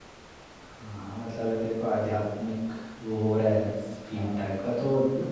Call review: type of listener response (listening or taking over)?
listening